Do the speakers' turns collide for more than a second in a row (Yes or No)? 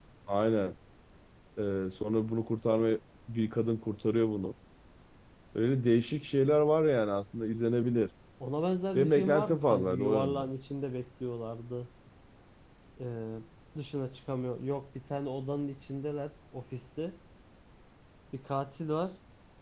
Yes